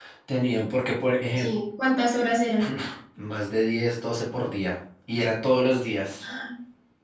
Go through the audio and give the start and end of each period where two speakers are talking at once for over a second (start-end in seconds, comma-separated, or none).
none